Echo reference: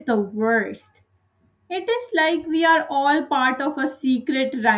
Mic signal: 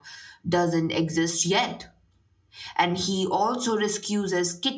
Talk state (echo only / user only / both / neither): user only